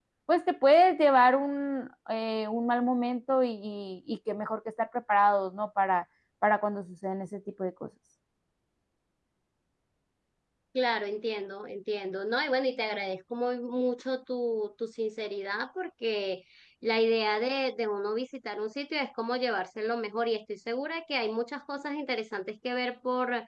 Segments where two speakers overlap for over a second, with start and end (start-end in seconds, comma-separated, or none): none